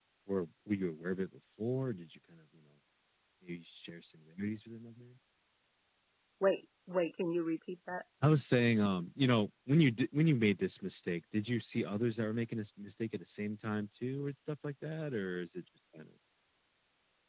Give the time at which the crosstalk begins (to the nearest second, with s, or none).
none